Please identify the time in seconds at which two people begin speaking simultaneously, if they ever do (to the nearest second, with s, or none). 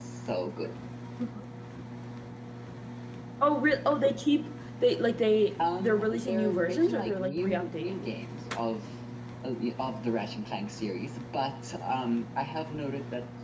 6 s